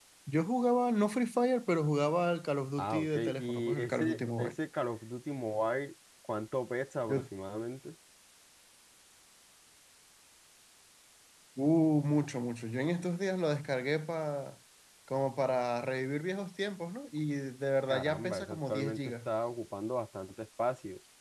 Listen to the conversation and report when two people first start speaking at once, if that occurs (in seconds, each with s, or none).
2.8 s